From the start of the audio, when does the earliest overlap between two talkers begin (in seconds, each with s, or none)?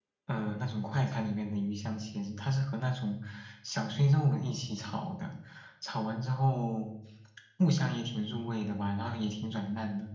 none